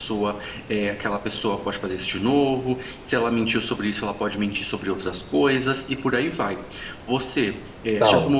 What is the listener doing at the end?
listening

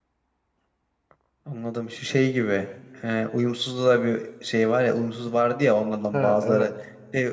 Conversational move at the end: listening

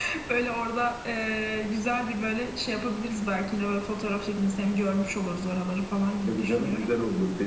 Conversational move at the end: taking over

